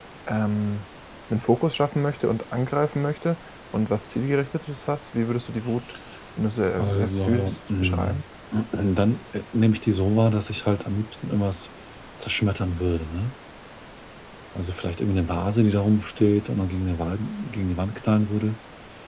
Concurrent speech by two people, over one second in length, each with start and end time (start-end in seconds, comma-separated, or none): 6.8-8.2